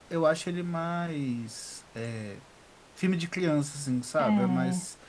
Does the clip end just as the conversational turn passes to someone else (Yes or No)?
No